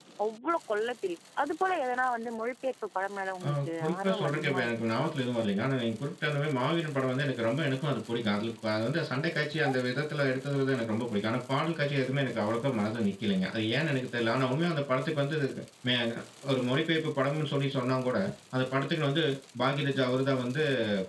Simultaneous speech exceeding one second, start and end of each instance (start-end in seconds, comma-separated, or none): 3.5-5.1